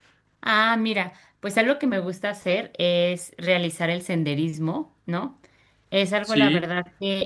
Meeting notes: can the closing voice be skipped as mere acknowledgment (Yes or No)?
Yes